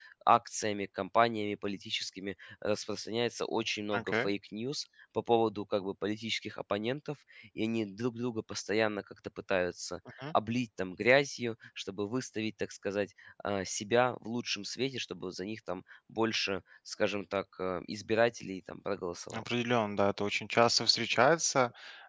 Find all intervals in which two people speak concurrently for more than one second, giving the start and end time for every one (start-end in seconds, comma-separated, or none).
none